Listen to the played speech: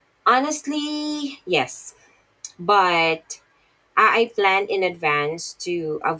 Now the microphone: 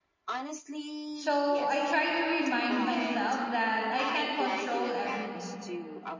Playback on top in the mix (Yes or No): No